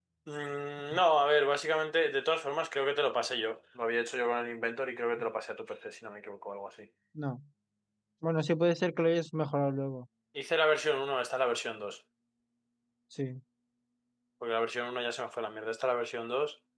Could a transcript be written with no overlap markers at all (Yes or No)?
Yes